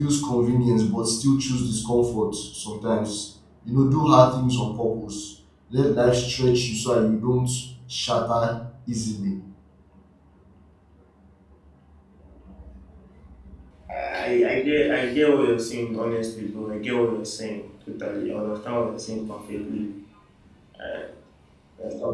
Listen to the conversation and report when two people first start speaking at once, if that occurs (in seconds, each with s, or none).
none